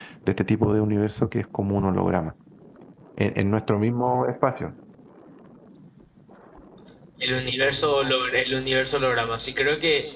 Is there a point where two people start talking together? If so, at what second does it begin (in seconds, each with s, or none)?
none